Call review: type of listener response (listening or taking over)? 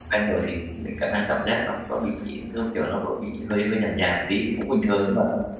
taking over